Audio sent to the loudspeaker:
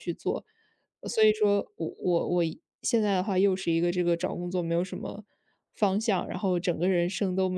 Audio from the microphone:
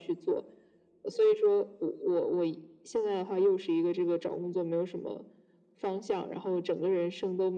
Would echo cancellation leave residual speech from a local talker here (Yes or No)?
No